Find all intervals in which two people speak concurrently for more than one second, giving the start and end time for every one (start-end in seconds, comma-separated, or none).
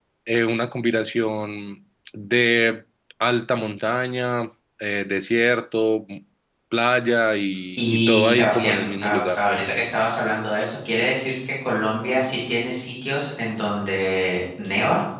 7.8-9.4